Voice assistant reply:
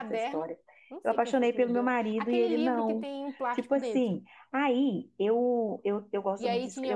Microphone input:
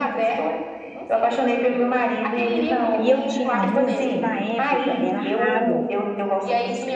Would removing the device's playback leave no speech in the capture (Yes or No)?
No